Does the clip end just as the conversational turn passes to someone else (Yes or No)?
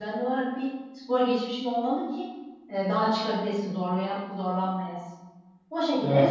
No